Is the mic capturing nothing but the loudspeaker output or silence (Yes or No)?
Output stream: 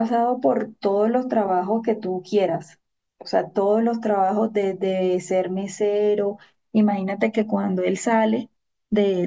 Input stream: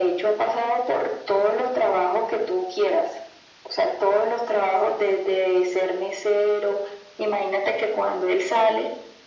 Yes